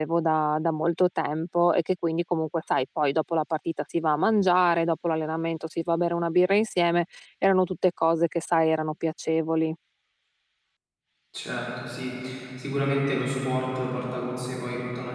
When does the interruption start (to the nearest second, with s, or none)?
none